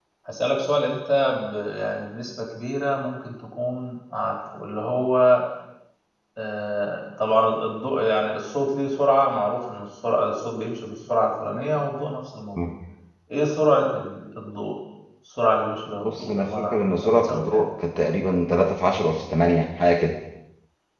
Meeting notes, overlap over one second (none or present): present